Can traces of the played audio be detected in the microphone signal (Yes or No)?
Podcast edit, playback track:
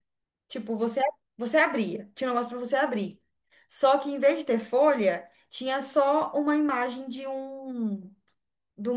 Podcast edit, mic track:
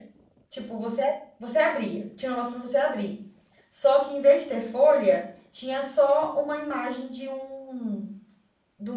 Yes